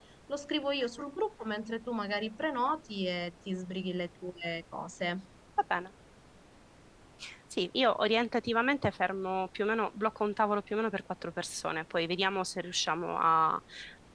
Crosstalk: none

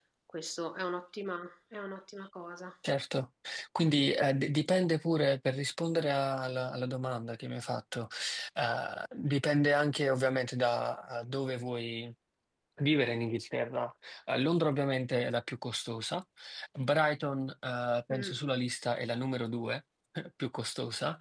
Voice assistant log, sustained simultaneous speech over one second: none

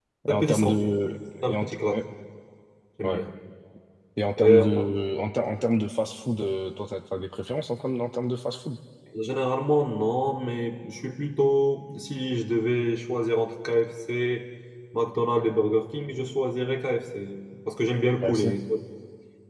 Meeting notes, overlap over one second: present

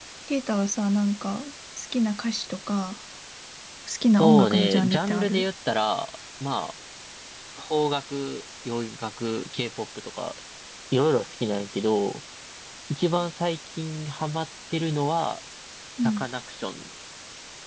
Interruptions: present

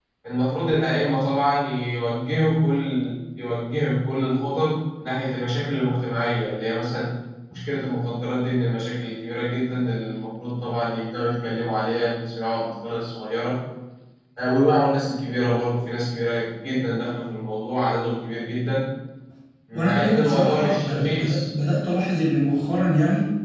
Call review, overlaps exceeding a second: present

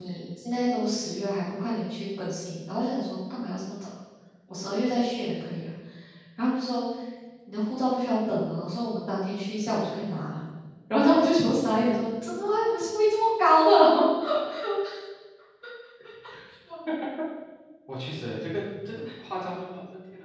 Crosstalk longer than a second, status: none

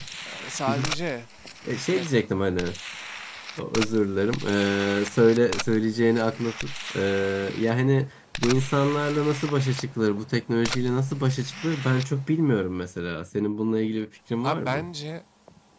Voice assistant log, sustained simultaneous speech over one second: none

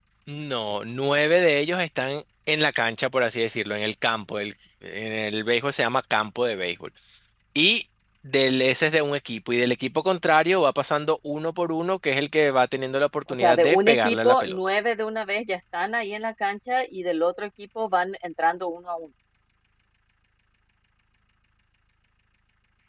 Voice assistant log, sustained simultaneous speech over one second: present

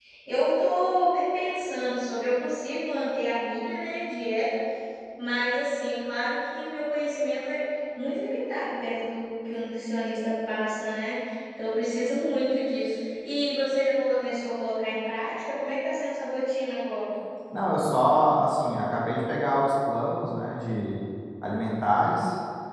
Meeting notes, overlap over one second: none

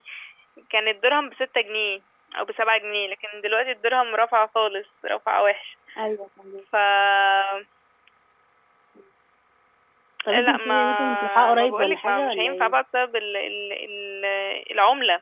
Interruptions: present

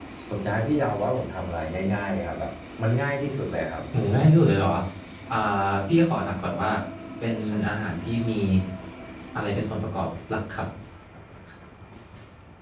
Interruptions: none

